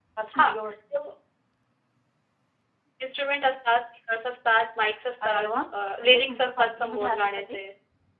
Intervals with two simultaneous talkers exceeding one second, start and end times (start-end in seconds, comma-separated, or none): 6.0-7.6